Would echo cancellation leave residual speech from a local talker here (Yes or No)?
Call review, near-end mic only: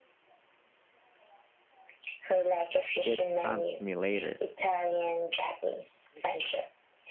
Yes